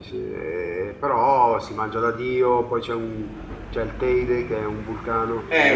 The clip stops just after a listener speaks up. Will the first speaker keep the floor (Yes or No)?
No